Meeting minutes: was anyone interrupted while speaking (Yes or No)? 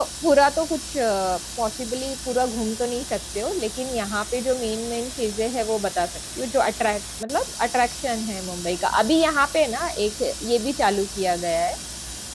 No